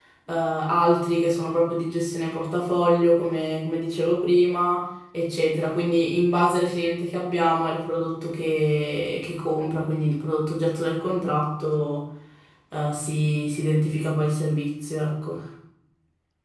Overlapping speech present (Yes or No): No